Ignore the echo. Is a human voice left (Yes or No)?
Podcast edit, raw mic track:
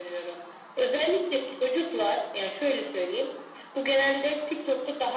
No